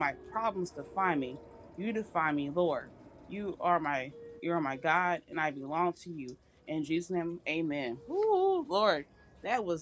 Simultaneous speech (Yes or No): No